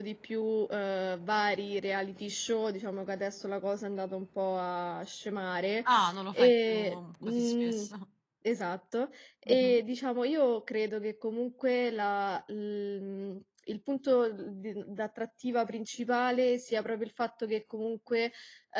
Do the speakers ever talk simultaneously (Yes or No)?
Yes